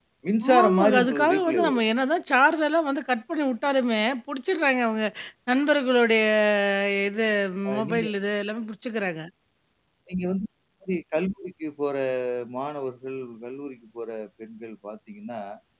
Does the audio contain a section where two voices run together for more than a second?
Yes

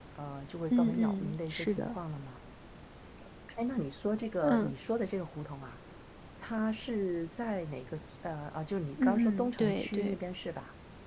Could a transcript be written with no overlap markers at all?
No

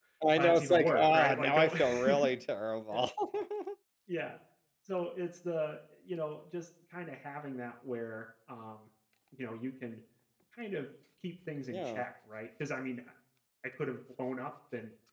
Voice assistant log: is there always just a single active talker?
No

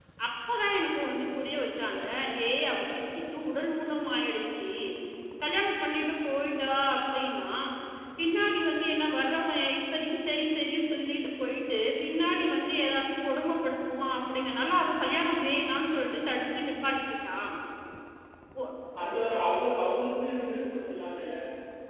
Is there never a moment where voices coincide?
Yes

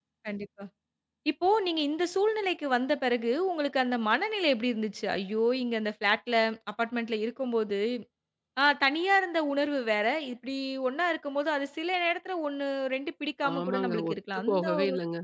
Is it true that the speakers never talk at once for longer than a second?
No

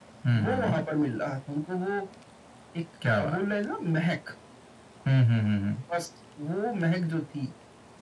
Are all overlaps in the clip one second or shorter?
Yes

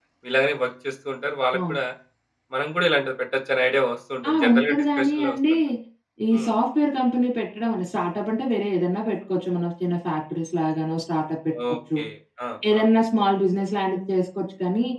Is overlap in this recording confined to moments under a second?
No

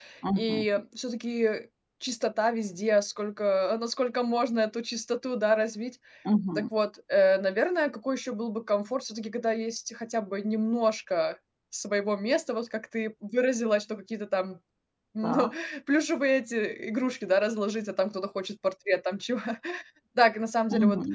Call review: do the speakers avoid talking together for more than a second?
Yes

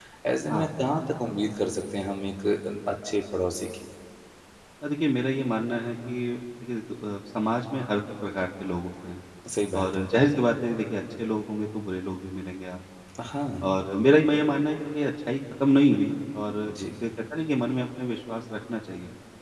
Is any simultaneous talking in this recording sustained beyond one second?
No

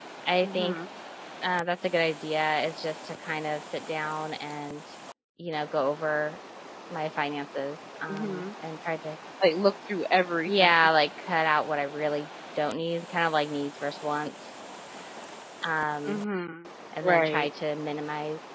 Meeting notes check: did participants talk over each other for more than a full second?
No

